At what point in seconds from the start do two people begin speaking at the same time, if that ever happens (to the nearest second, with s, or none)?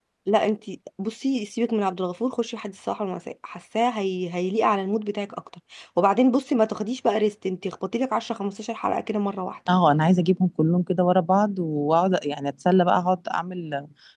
none